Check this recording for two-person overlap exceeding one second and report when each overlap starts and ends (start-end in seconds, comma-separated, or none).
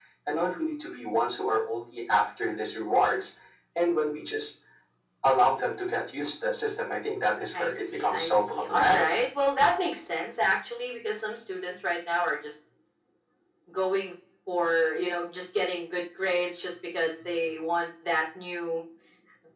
7.6-9.1